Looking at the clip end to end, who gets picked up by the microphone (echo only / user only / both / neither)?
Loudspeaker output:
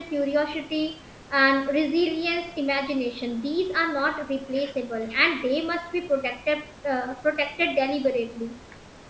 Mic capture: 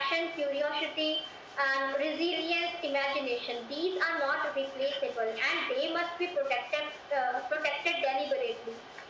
echo only